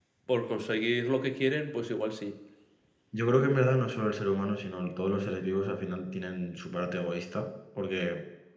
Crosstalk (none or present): none